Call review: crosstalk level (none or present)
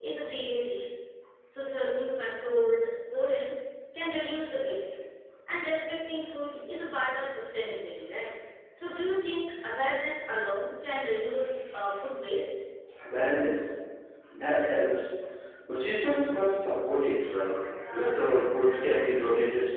none